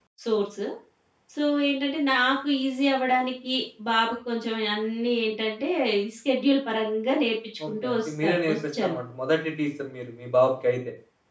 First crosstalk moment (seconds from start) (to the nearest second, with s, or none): 8 s